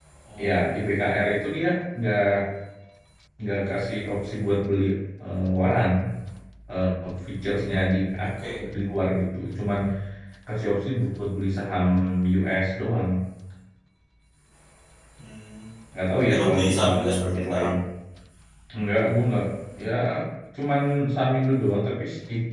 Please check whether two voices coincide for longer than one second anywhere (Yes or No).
Yes